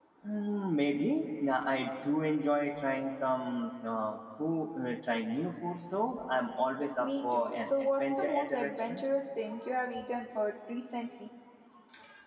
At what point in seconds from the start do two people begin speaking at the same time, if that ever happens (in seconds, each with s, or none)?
7.0 s